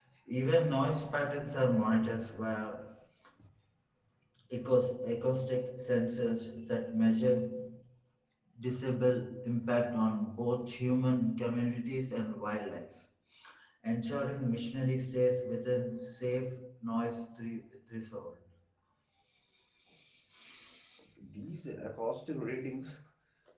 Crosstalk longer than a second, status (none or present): none